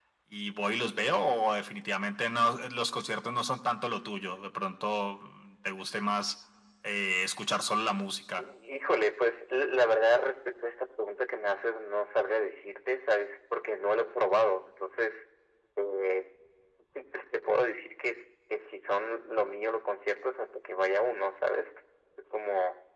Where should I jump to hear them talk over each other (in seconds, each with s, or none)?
none